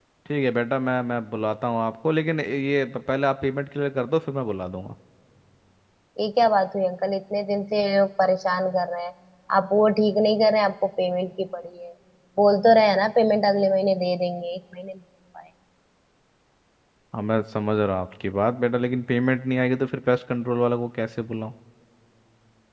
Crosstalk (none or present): none